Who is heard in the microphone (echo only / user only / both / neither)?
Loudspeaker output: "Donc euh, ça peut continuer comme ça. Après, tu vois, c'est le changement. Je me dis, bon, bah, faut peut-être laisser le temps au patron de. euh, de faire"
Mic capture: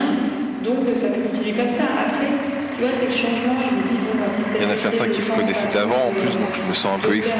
both